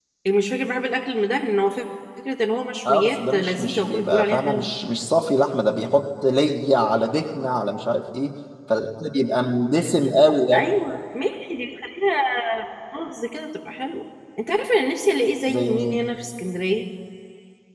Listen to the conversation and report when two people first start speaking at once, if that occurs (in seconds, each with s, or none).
2.9 s